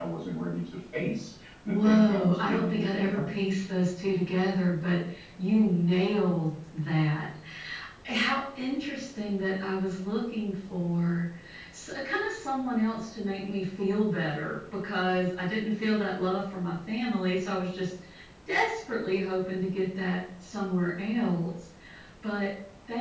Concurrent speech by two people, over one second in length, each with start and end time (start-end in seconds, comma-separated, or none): 1.7-3.4